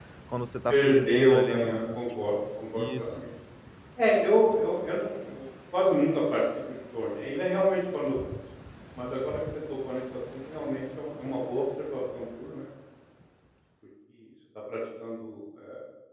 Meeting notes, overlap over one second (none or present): present